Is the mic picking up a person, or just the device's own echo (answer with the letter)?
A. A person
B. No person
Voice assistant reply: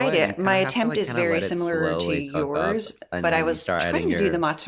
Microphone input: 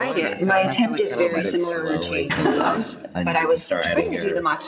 A